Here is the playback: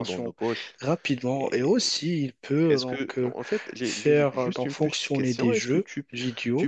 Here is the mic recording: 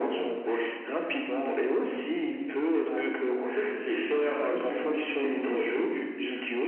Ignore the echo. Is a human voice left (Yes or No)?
No